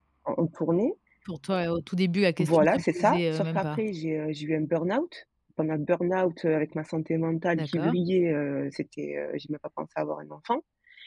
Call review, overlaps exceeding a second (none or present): present